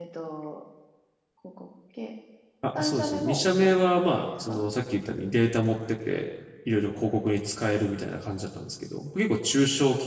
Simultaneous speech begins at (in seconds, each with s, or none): 2.8 s